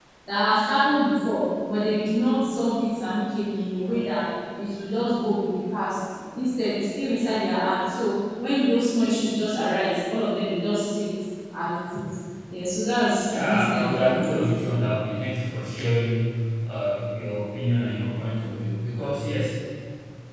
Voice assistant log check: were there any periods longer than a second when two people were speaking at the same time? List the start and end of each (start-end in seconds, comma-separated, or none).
13.2-14.5